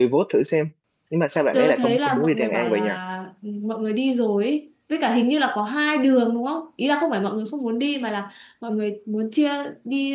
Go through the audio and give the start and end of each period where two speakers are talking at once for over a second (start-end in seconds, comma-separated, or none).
1.5-2.9